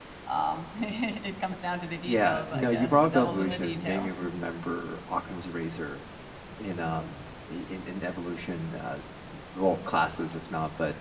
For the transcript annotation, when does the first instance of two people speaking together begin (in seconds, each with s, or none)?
2.0 s